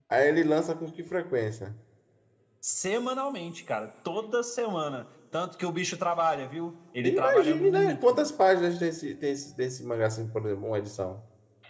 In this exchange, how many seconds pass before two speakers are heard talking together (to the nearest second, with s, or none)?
7 s